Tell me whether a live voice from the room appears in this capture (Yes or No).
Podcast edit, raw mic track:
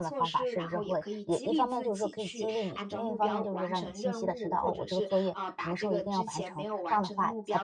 Yes